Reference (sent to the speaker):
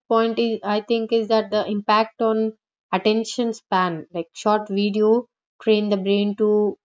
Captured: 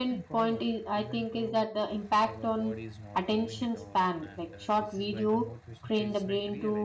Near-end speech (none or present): present